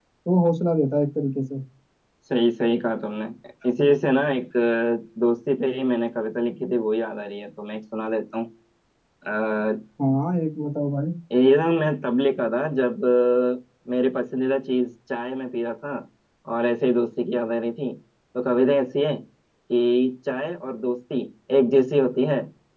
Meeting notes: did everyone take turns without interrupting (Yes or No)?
Yes